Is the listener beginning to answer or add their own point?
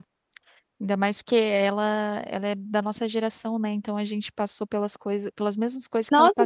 Yes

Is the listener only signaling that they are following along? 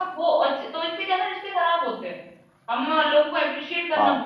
Yes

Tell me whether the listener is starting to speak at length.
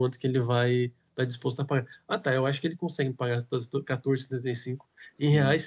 No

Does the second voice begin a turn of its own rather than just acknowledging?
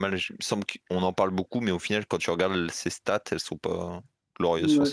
Yes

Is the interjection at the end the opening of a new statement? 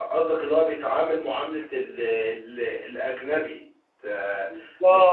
No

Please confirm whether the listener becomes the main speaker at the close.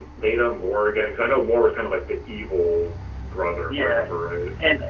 Yes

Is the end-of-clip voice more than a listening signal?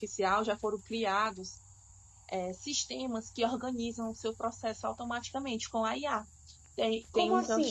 No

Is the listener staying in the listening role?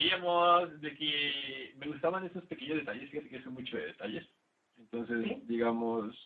Yes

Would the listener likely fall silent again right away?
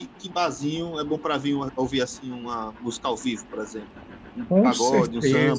No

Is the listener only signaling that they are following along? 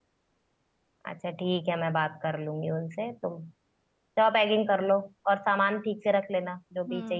No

